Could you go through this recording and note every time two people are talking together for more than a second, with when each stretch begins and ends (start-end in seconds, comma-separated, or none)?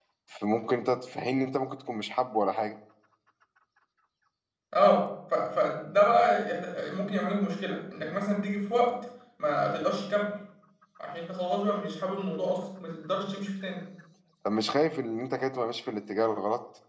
none